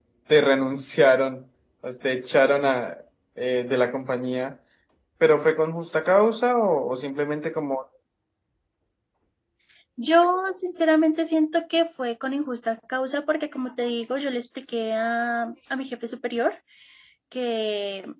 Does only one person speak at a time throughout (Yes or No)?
Yes